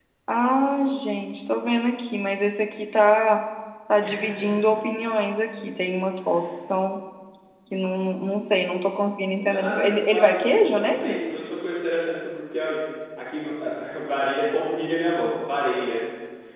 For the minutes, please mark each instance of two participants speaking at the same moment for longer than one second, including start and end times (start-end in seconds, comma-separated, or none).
9.3-11.2